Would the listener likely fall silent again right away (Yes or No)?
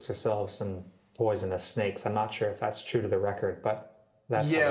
No